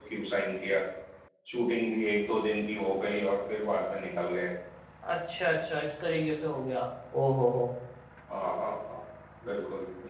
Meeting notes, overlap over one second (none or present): none